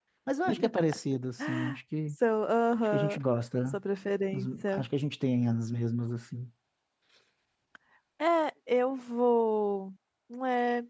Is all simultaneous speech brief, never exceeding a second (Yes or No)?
Yes